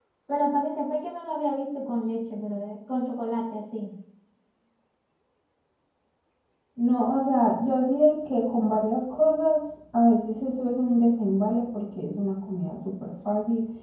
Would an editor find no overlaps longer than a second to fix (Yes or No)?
Yes